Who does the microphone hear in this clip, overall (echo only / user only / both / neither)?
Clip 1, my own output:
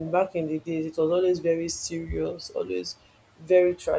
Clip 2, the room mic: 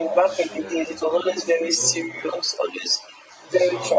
both